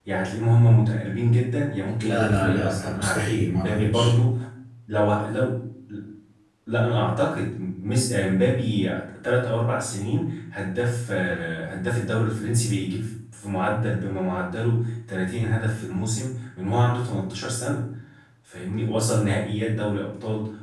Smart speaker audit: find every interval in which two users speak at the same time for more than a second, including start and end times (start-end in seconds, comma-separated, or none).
2.0-4.1